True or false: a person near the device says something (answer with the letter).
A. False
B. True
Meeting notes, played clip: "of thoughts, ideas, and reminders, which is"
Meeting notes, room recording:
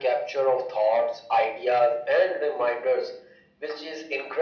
A